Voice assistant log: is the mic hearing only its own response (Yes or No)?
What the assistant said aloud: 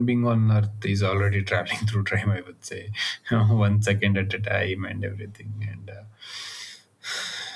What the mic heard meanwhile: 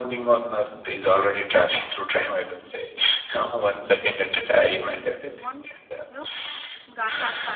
No